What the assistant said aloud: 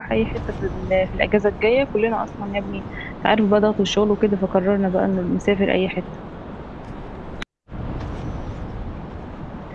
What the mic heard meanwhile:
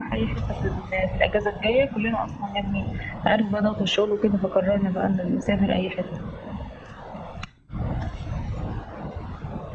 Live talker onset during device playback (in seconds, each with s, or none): none